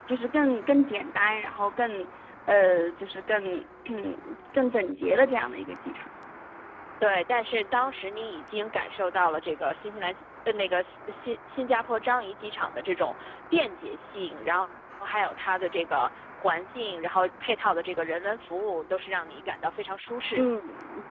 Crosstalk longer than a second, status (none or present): none